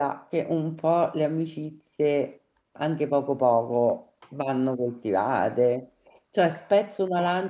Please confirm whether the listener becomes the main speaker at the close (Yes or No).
No